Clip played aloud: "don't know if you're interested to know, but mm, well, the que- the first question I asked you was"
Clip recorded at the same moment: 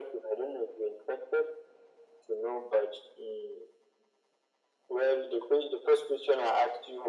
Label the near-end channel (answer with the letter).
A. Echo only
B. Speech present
A